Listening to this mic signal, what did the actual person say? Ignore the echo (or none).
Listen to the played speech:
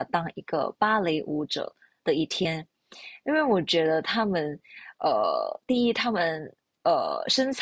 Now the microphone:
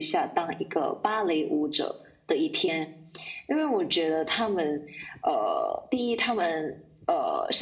none